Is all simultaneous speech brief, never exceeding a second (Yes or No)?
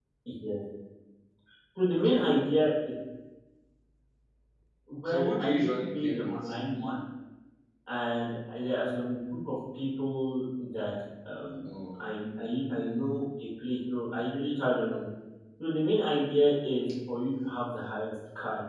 No